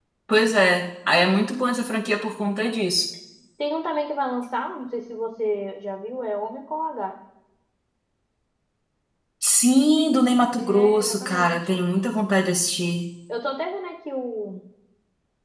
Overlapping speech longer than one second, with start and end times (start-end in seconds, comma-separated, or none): 10.6-11.8